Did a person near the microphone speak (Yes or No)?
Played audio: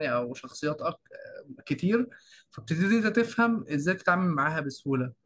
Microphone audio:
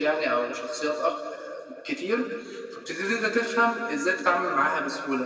No